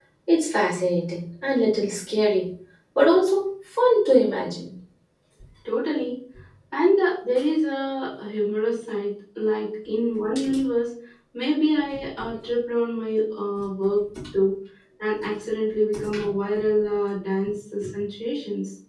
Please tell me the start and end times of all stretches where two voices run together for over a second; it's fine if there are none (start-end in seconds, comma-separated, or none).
none